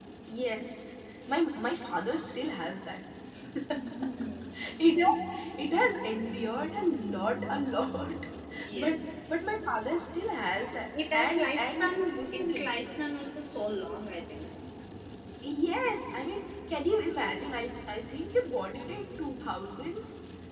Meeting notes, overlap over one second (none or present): present